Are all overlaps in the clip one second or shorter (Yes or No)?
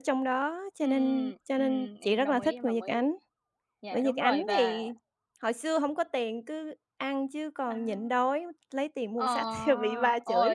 No